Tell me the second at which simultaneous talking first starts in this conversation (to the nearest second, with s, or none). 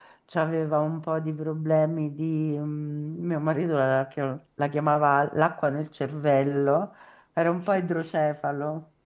none